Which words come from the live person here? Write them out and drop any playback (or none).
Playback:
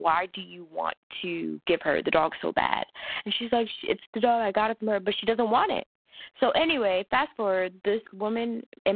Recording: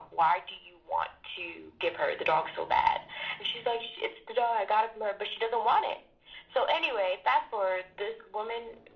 none